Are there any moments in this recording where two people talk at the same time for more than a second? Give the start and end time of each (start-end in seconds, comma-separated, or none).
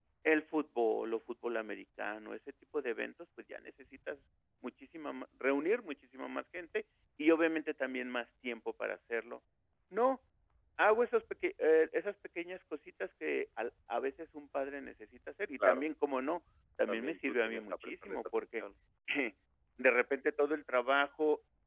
16.9-18.6